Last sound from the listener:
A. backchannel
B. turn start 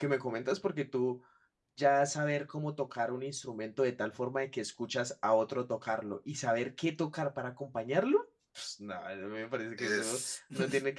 A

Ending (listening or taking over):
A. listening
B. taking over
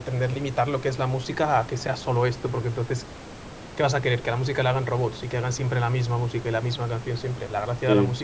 A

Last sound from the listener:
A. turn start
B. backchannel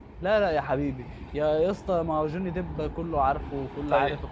A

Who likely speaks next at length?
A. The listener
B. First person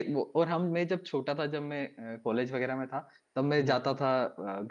B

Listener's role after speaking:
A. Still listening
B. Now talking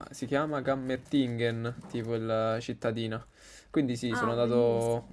A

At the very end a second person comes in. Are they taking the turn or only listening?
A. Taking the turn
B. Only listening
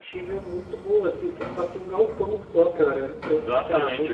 A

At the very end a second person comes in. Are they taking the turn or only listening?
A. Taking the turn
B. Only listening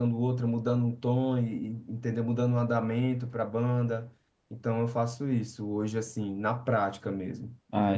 A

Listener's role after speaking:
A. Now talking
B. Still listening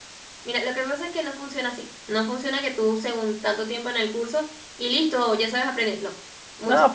A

